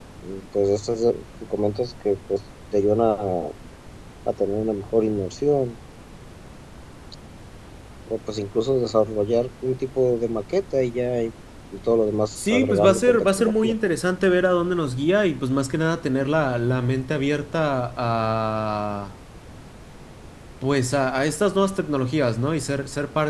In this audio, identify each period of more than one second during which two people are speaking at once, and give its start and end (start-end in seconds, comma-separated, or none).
12.4-13.7